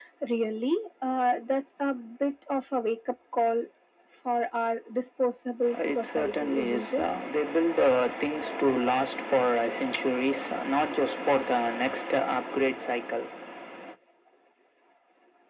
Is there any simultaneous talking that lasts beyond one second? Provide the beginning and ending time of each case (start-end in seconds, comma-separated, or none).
5.8-7.0